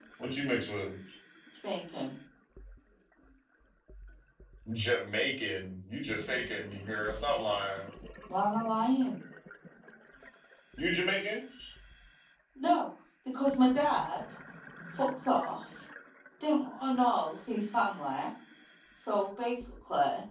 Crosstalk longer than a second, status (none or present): none